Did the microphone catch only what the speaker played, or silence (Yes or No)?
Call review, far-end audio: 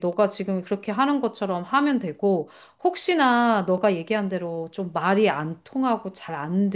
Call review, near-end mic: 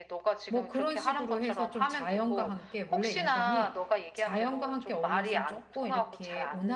No